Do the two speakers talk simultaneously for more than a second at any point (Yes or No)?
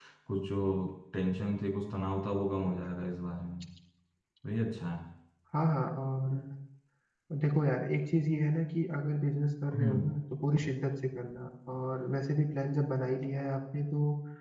No